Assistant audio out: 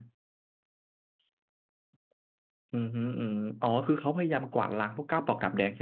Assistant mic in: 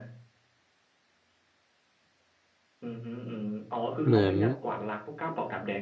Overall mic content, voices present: both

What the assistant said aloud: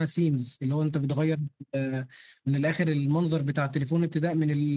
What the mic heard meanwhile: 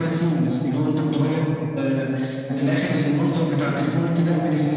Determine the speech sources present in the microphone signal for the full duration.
both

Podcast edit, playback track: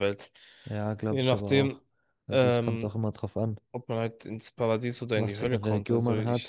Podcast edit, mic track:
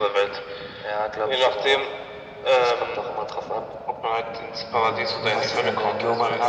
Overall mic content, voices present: both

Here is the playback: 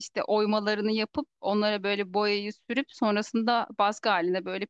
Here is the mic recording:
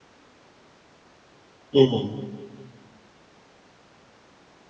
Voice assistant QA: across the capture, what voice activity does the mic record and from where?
user only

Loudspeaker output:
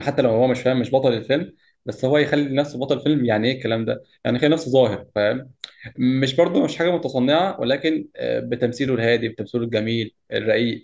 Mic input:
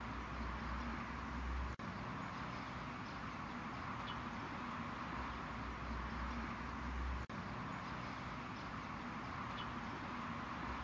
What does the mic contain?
neither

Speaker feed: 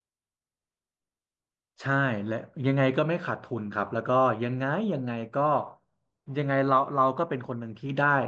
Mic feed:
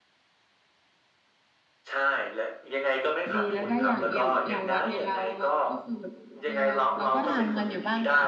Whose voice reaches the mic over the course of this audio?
both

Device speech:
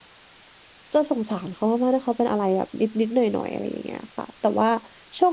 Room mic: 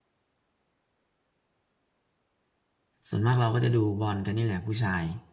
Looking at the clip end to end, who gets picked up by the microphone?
user only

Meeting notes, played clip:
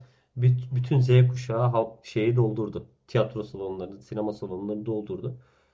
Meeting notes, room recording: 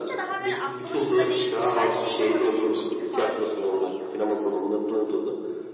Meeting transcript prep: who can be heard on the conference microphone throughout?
both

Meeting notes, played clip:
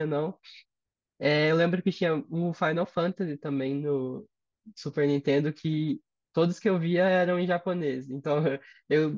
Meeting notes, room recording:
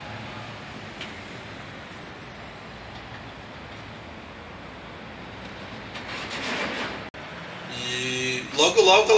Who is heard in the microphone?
user only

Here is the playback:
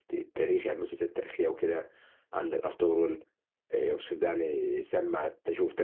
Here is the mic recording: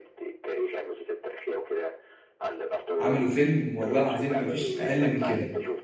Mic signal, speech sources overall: both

